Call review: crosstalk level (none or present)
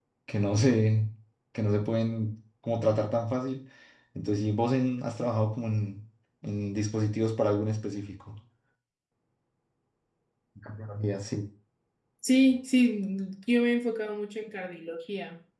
none